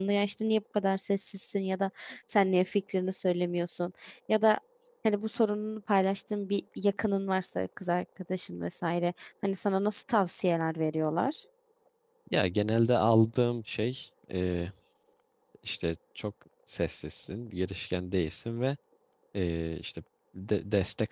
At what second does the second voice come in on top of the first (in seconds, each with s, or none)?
none